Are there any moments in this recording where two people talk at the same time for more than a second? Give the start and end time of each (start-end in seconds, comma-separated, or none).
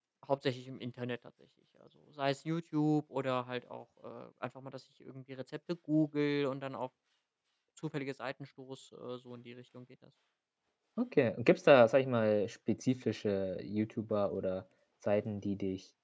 none